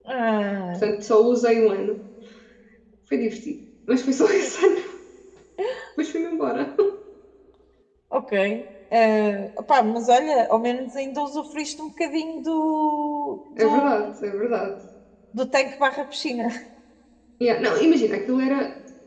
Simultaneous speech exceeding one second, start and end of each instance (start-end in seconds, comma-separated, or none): none